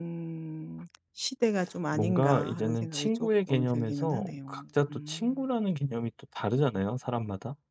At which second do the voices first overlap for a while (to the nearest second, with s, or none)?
2 s